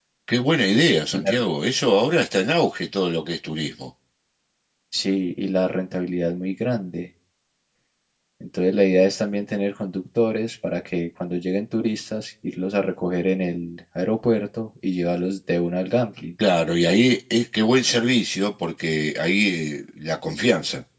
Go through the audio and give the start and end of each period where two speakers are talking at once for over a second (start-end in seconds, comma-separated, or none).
none